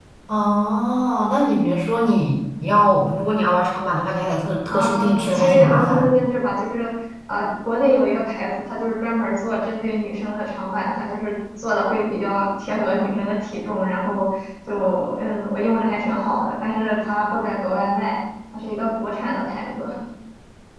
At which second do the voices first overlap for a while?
4.7 s

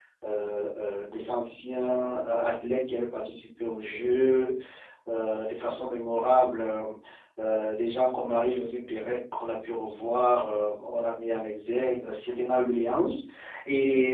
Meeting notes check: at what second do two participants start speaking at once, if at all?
none

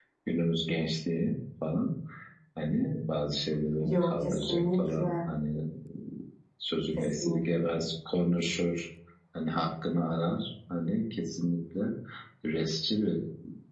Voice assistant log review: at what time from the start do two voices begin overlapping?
3.9 s

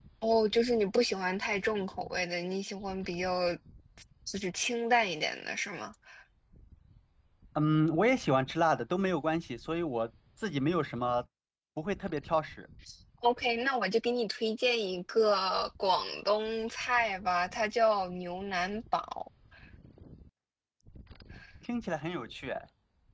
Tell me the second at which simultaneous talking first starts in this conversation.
none

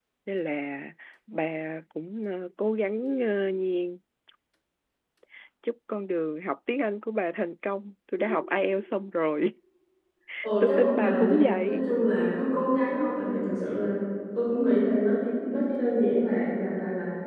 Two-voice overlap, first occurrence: 10.6 s

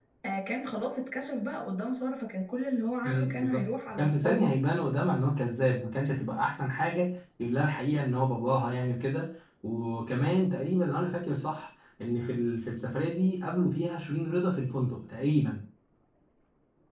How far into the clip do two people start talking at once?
3.0 s

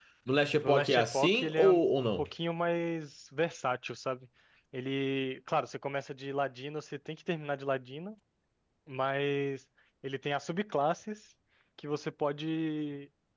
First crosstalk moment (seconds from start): 0.6 s

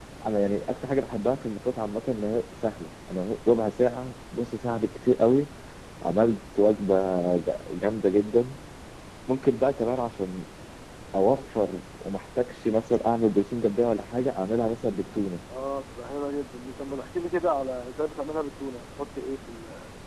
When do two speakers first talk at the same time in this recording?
none

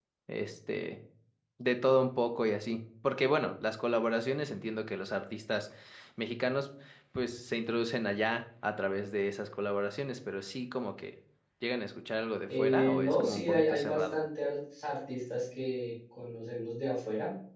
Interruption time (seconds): 12.5 s

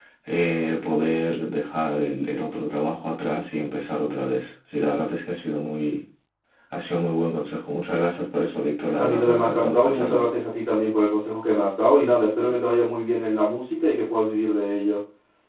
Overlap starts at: 9.0 s

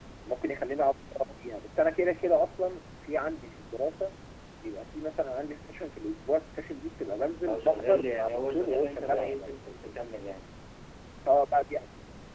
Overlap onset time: 7.4 s

